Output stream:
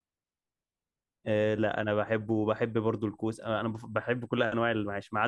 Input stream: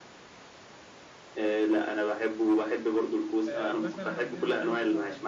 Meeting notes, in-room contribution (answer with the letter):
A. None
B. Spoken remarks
B